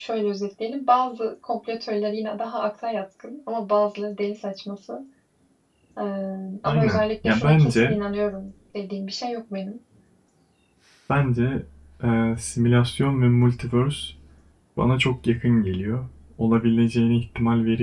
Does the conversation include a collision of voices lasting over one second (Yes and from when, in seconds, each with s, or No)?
Yes, from 6.6 s